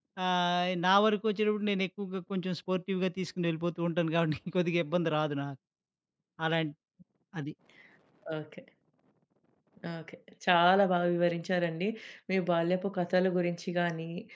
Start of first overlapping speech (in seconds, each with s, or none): none